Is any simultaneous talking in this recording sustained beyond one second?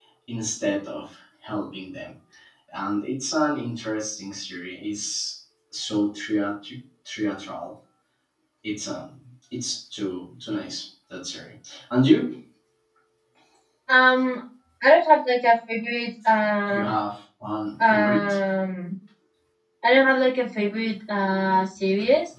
No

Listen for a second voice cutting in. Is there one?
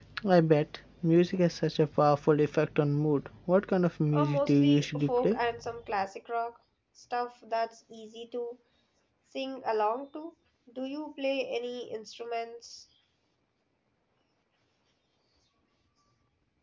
Yes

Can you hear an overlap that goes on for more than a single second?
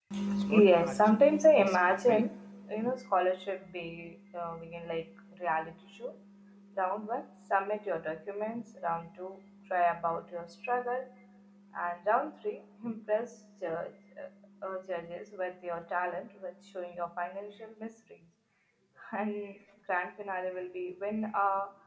Yes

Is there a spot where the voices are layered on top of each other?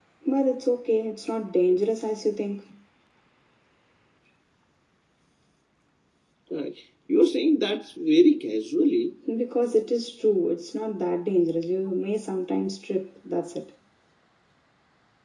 No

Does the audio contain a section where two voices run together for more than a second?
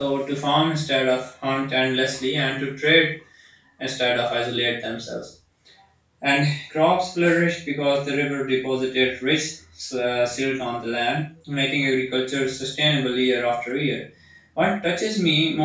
No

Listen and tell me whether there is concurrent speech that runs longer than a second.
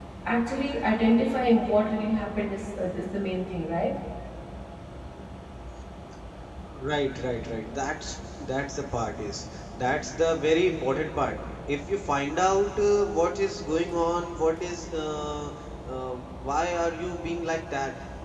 No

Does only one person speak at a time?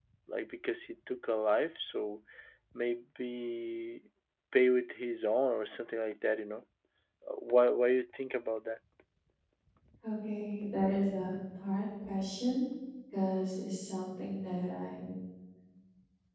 Yes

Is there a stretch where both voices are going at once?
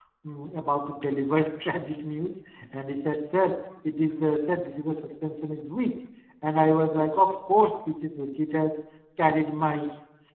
No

